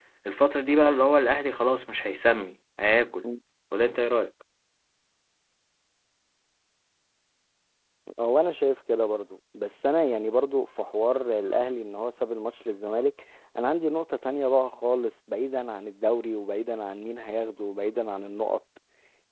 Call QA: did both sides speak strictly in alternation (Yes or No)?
Yes